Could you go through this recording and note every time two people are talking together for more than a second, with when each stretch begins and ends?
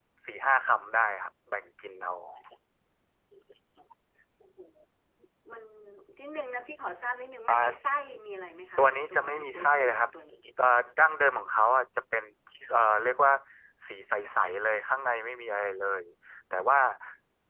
8.8-10.1

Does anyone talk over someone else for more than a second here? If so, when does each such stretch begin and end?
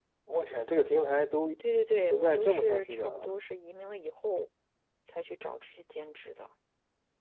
2.0-3.3

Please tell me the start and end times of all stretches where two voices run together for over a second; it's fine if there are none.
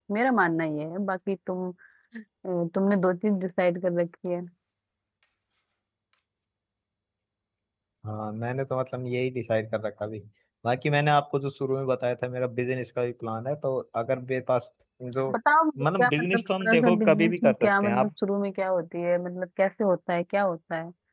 15.8-18.1

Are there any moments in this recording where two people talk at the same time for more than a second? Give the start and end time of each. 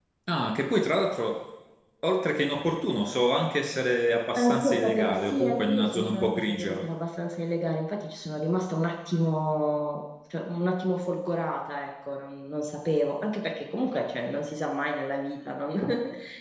4.4-6.8

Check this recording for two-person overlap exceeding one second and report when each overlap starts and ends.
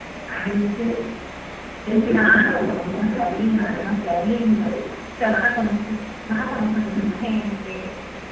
2.0-3.8

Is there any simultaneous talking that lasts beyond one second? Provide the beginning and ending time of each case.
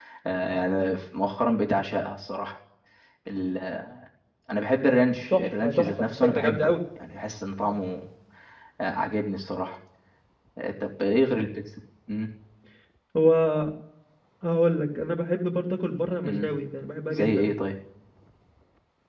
5.3-6.7

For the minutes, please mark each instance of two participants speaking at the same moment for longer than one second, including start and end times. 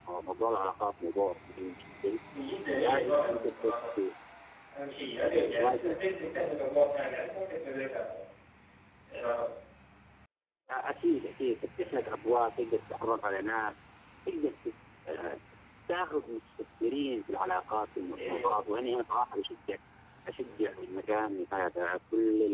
2.8-4.0

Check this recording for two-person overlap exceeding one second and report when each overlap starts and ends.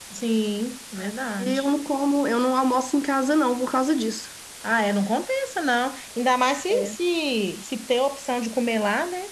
none

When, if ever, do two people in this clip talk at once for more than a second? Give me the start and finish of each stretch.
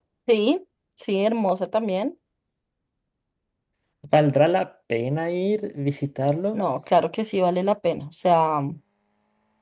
none

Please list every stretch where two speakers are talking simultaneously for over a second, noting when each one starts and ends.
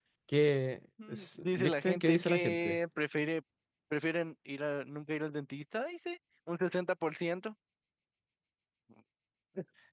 1.1-2.8

